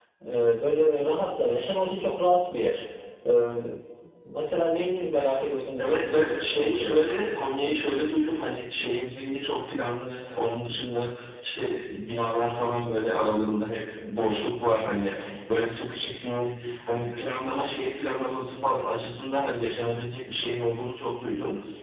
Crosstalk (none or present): present